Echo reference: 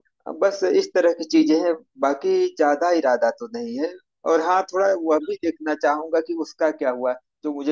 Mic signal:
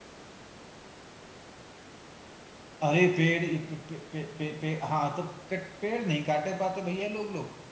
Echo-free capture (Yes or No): Yes